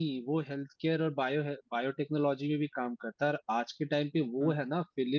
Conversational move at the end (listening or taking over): listening